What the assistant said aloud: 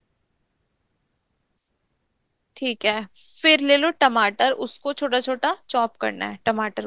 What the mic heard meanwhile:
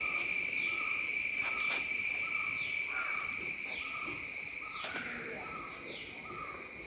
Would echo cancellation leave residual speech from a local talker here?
No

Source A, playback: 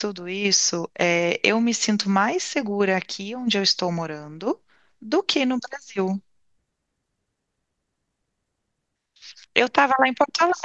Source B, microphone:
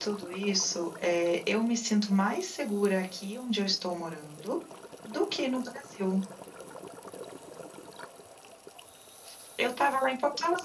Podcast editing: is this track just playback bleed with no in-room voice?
Yes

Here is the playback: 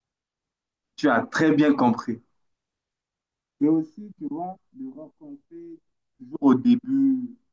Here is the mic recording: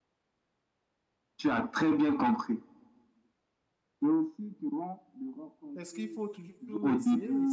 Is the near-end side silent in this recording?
No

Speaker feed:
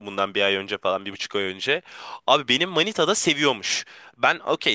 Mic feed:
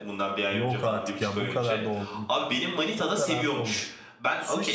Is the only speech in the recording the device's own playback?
No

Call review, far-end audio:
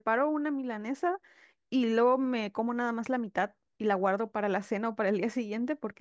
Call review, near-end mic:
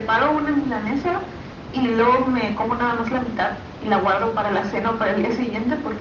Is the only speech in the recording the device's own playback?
Yes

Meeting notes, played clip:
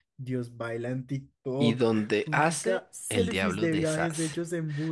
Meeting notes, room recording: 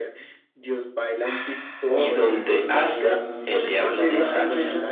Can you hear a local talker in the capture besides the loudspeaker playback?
Yes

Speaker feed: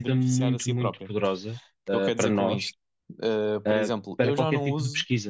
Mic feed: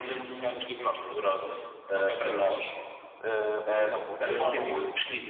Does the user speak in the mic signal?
Yes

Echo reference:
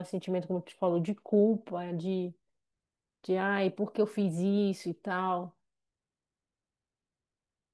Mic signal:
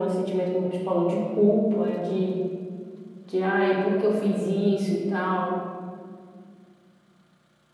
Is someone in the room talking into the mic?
No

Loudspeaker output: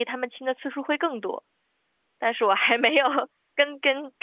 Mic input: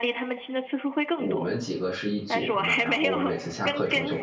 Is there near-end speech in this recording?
Yes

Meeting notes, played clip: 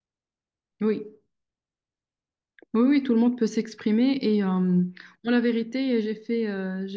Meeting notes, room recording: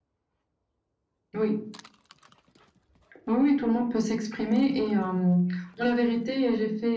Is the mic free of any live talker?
Yes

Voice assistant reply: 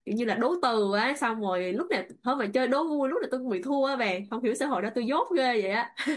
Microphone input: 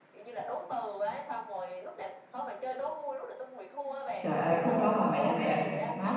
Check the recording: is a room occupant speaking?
Yes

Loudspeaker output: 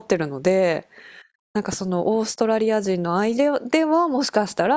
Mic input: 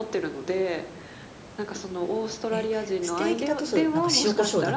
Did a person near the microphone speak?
Yes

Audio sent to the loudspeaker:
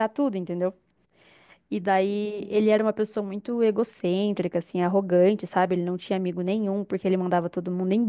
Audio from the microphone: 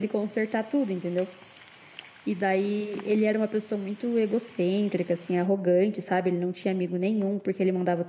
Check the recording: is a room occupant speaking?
No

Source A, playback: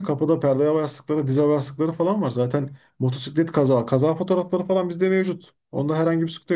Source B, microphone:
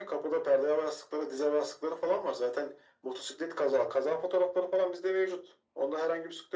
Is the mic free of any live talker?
Yes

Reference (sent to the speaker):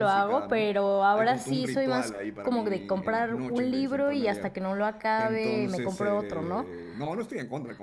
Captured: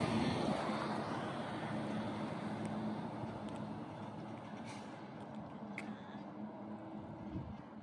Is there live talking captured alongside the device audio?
No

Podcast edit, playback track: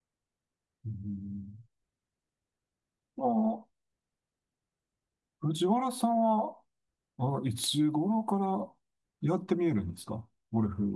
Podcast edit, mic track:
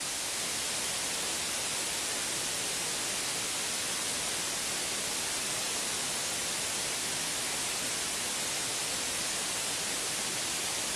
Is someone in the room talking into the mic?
No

